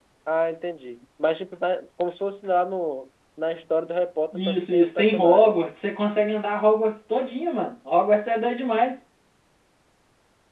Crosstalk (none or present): present